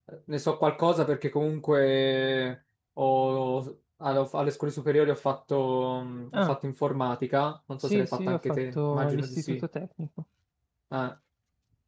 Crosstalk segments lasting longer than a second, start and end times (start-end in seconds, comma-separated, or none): 7.8-9.6